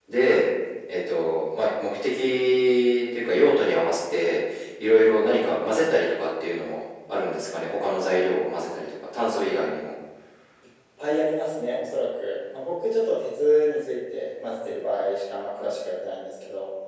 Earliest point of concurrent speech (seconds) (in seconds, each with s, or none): none